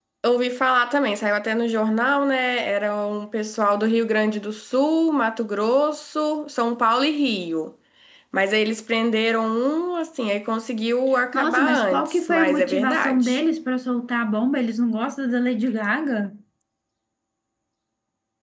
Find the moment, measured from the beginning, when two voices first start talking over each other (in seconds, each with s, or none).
11.3 s